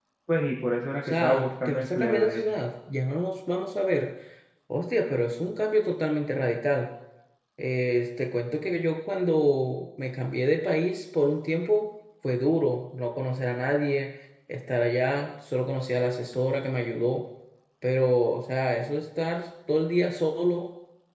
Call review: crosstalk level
present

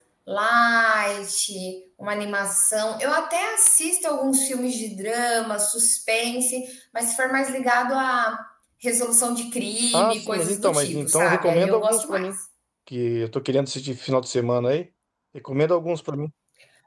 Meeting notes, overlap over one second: present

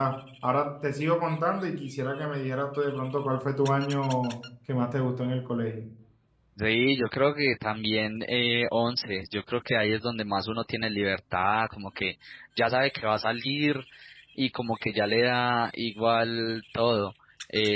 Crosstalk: none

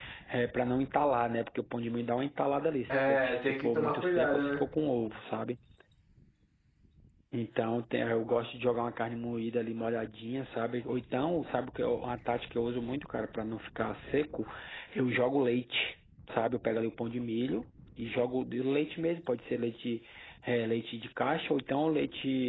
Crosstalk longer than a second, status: present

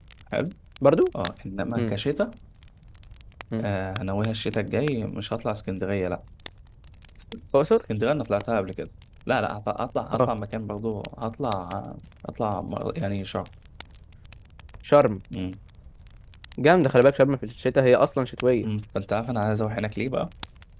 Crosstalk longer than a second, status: none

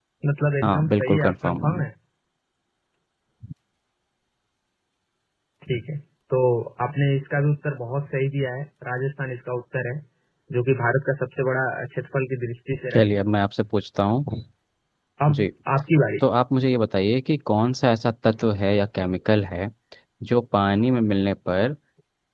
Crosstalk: present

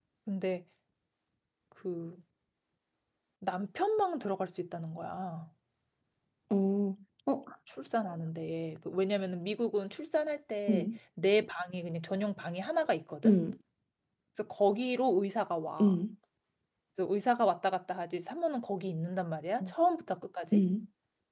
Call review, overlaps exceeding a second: none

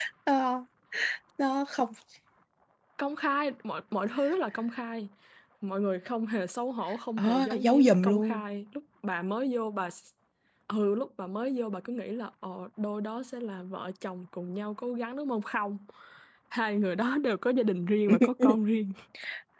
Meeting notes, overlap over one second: present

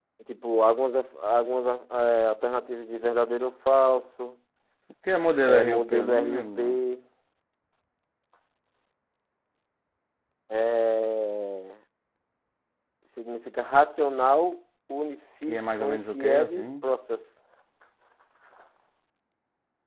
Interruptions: present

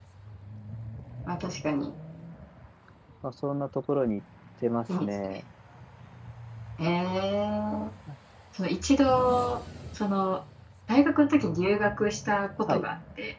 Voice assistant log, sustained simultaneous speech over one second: none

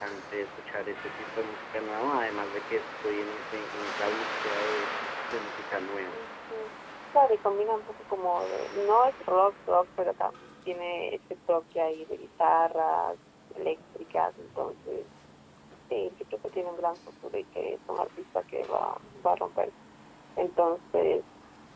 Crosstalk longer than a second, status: none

